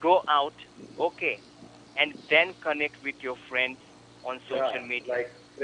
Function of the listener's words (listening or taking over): taking over